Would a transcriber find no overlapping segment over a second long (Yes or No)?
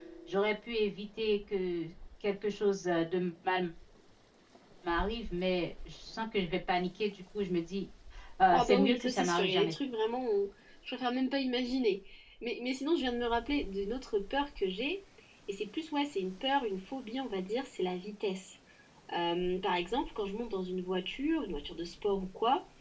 No